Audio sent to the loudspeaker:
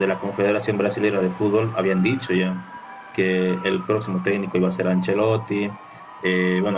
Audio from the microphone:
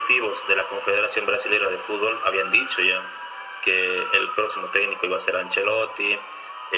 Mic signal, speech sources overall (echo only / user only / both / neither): echo only